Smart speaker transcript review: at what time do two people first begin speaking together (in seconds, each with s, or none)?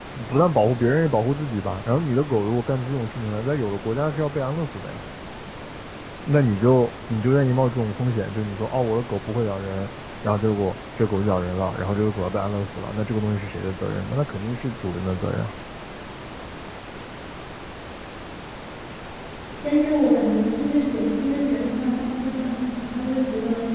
none